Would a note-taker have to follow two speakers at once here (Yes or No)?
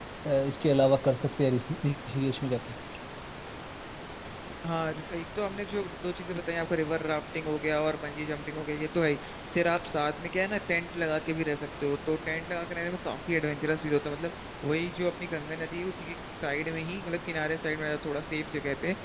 No